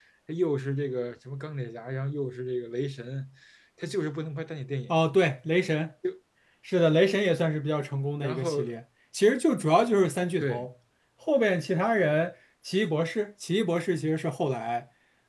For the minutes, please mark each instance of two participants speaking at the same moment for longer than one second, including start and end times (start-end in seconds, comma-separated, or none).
none